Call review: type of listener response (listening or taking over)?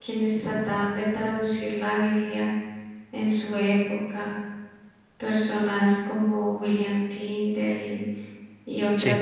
listening